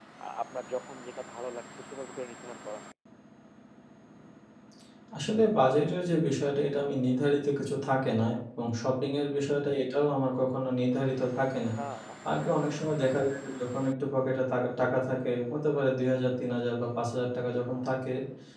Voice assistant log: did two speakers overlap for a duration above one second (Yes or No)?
No